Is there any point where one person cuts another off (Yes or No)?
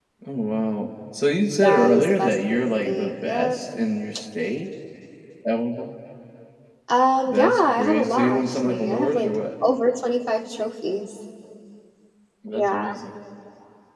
Yes